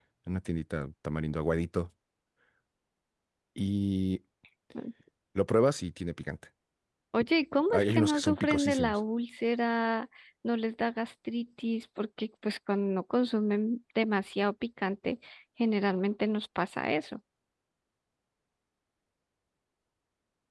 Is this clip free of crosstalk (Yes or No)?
No